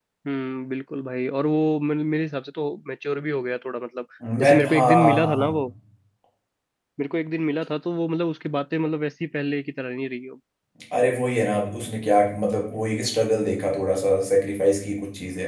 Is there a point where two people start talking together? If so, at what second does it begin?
4.2 s

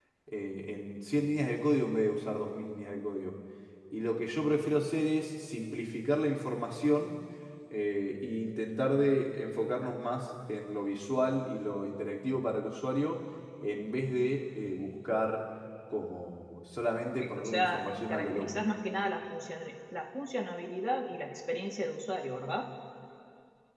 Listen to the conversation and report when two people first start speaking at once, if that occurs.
17.4 s

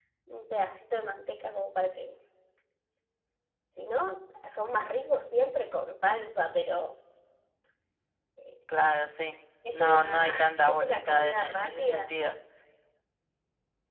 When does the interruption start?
9.6 s

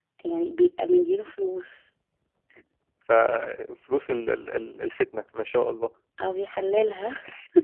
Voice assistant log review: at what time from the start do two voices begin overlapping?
none

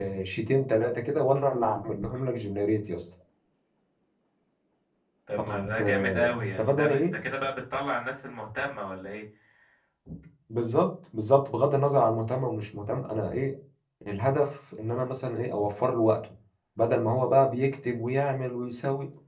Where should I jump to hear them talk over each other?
5.4 s

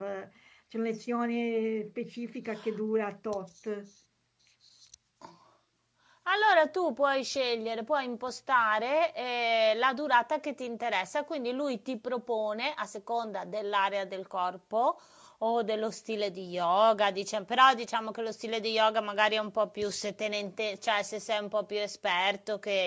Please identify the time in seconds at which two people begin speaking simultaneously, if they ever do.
none

